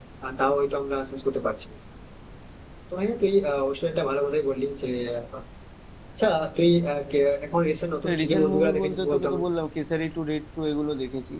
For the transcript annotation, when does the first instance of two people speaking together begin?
8.0 s

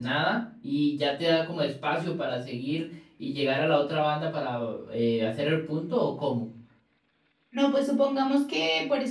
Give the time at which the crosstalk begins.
none

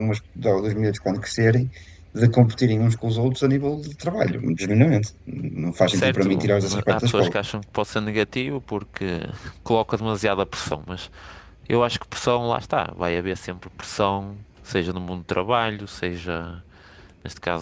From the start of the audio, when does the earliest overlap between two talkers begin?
5.9 s

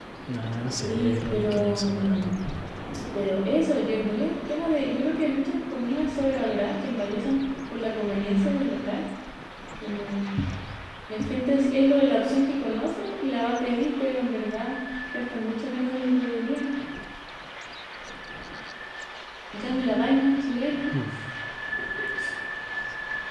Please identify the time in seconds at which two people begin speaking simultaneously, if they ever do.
0.9 s

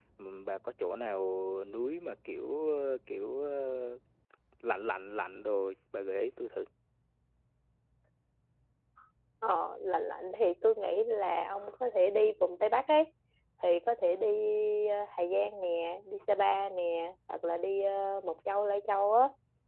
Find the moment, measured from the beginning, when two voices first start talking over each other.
none

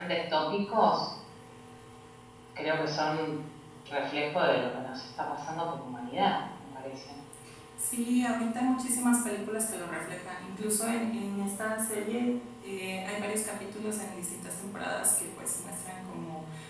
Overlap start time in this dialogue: none

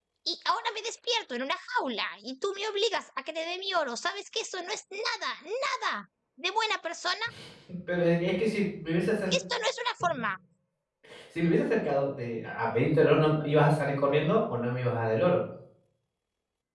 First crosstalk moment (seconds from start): none

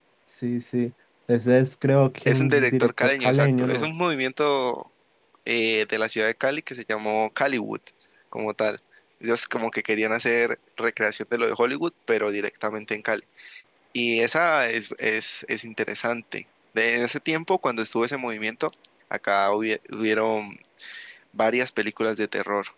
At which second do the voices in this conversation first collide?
2.2 s

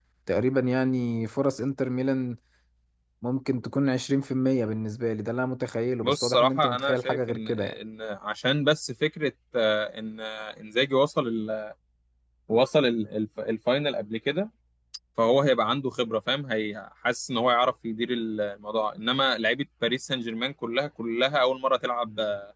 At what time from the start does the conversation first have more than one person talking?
6.0 s

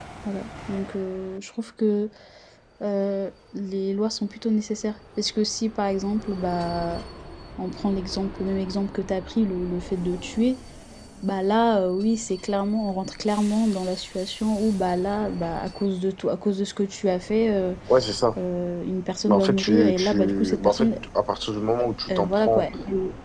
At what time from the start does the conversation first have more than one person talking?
19.3 s

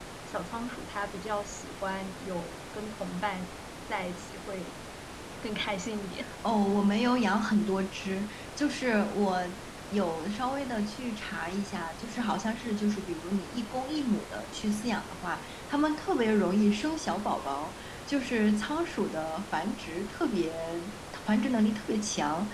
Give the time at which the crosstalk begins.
none

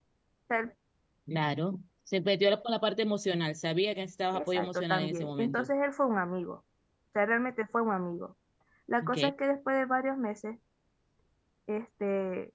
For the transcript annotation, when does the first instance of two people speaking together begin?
4.3 s

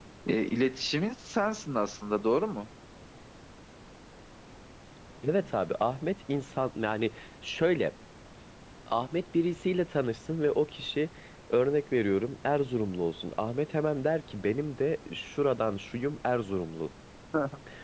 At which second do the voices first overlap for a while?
none

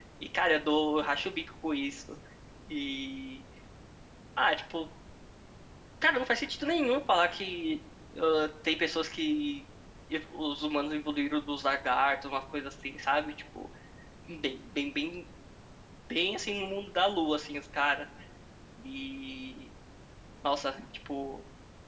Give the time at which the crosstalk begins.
none

